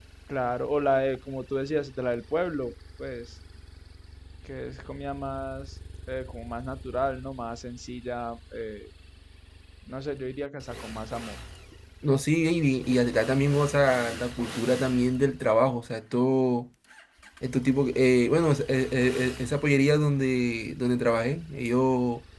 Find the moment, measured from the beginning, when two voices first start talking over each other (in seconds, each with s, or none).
none